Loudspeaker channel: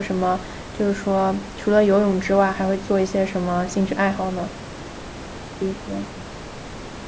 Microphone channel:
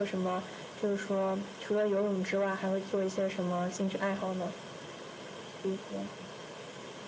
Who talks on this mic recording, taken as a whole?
echo only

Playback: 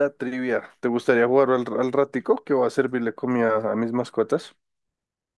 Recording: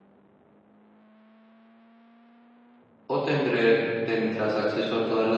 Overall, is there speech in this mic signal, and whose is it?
user only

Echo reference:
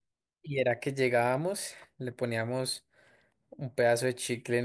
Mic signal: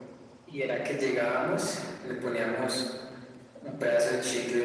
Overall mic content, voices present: echo only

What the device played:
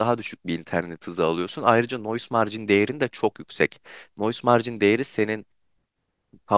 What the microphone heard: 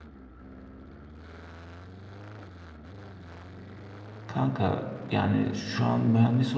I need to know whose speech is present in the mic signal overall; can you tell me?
user only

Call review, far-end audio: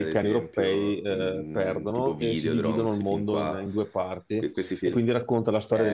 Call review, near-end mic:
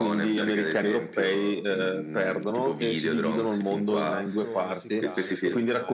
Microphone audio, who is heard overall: both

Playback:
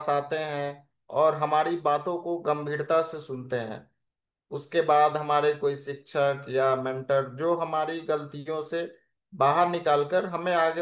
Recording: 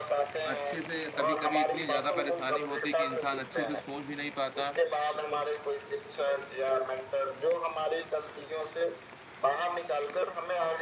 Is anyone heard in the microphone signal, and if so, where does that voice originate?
both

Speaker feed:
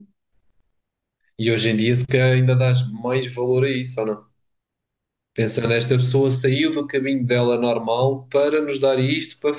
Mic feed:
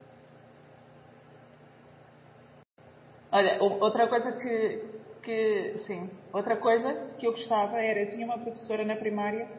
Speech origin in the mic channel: user only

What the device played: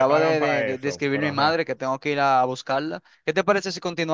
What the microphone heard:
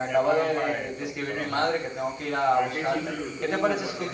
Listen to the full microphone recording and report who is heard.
both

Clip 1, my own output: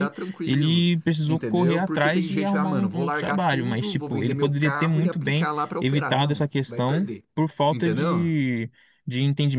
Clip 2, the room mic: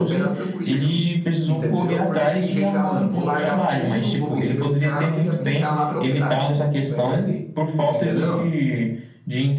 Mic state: echo only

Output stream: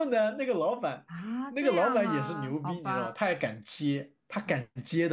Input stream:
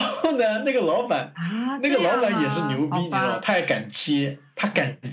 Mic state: echo only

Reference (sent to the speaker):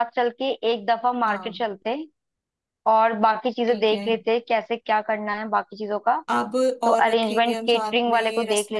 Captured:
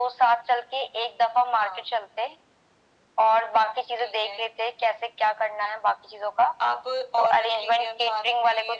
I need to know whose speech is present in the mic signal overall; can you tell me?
echo only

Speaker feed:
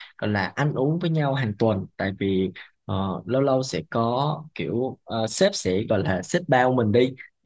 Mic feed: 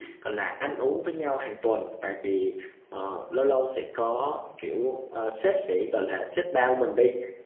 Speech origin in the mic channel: echo only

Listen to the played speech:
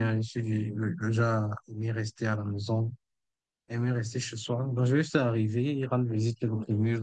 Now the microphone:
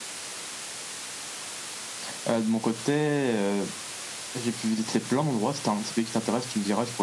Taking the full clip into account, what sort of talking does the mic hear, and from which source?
user only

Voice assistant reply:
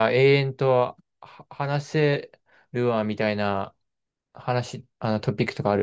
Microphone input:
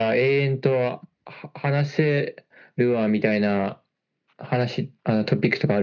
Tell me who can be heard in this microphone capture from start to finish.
echo only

